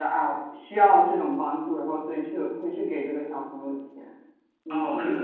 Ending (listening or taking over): taking over